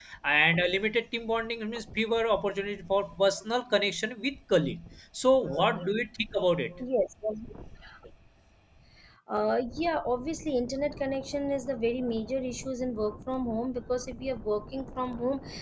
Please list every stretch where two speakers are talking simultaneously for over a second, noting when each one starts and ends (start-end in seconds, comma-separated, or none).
none